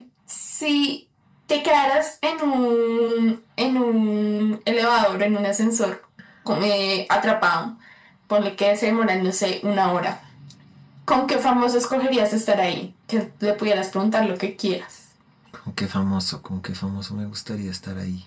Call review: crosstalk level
none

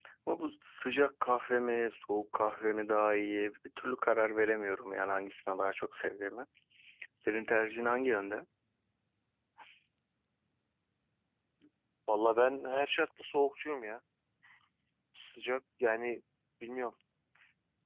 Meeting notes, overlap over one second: none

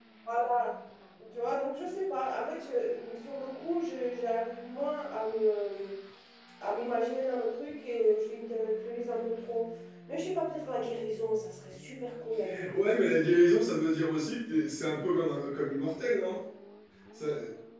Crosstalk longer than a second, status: none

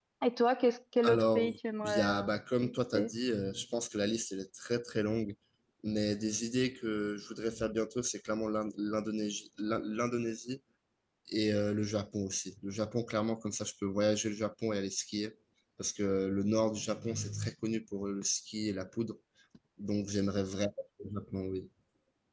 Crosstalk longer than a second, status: present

